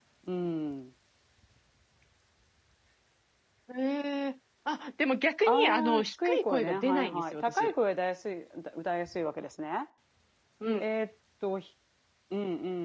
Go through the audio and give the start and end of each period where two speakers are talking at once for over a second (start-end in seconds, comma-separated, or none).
5.5-7.7